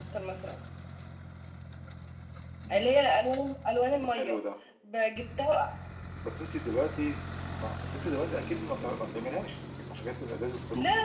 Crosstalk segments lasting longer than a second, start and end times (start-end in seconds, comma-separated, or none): none